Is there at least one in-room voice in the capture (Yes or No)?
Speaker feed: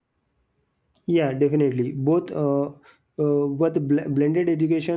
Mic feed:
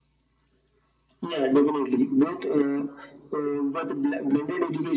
No